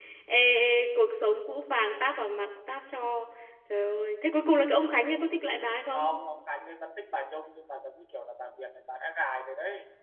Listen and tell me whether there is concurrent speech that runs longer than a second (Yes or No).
No